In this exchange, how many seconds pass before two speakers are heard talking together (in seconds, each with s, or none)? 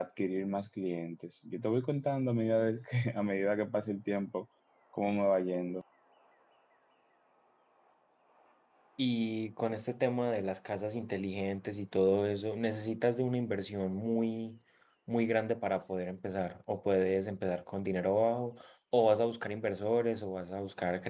none